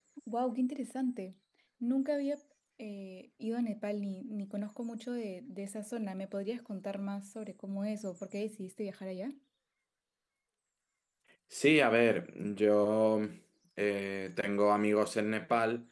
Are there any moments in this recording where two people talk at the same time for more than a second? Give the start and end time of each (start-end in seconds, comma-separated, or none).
none